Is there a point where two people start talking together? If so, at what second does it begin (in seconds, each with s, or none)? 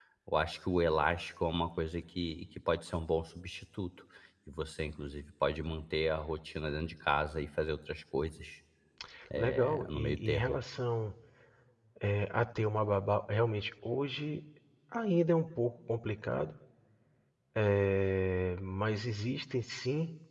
9.4 s